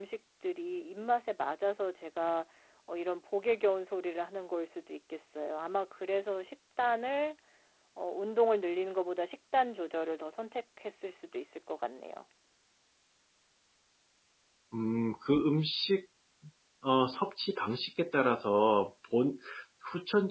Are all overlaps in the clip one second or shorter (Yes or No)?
Yes